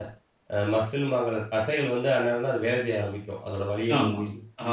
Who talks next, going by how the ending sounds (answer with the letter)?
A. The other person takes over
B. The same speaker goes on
A